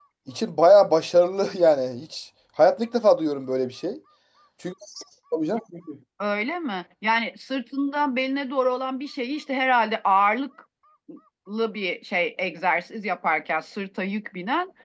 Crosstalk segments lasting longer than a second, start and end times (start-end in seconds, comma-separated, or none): none